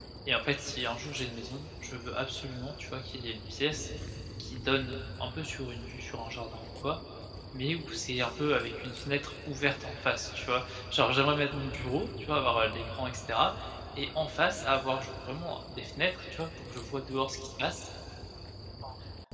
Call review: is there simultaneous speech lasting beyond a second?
No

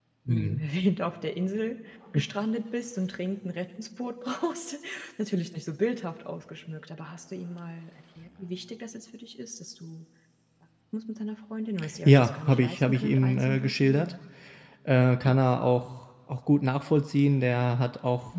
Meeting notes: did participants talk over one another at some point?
Yes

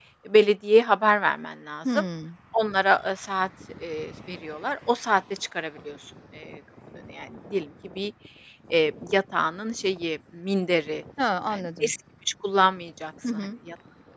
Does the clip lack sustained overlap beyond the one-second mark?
Yes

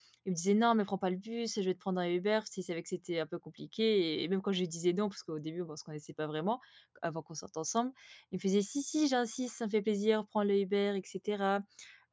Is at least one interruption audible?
No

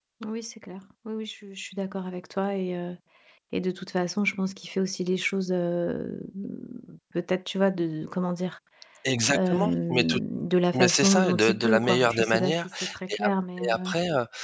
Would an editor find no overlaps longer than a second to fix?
No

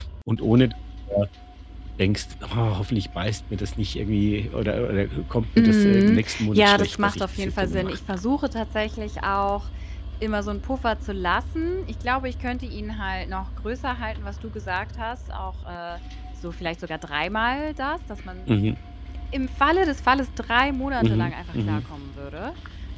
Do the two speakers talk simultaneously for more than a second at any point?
Yes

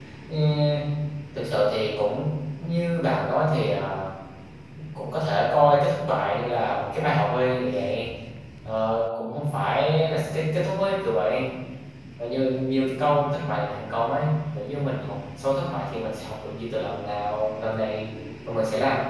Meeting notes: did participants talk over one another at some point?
No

